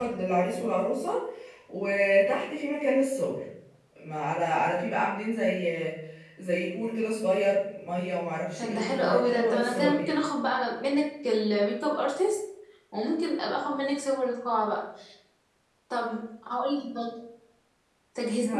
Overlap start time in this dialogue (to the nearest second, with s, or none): 9 s